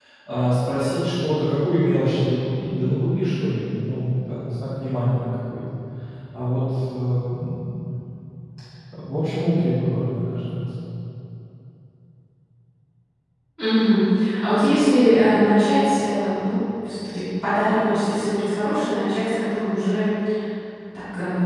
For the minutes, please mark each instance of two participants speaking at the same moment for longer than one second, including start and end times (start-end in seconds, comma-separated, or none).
none